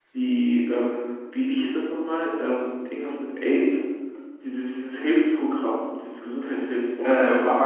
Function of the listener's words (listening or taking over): taking over